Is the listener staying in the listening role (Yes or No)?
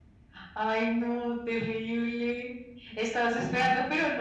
Yes